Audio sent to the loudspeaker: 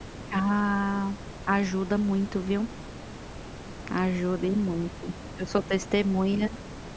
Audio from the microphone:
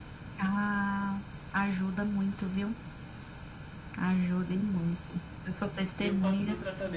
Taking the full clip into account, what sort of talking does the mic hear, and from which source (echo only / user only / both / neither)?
both